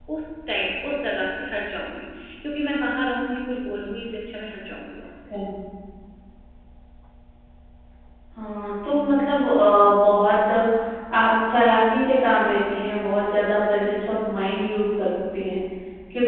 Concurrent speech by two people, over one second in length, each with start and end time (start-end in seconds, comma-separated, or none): none